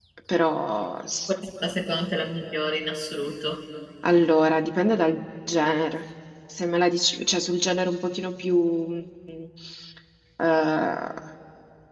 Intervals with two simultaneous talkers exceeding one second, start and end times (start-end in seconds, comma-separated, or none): none